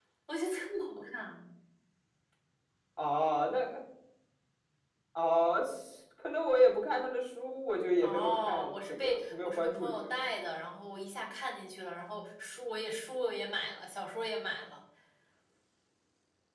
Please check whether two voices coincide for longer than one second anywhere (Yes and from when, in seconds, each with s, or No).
Yes, from 8.0 s